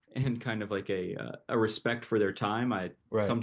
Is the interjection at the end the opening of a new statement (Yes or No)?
No